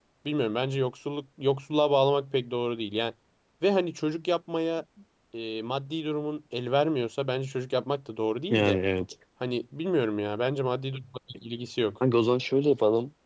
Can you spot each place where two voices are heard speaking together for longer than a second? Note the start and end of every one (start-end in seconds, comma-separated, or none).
none